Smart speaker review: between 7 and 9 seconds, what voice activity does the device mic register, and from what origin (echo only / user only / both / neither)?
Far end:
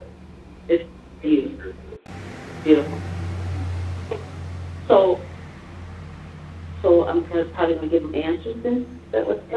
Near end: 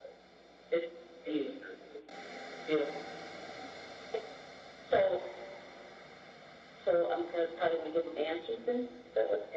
echo only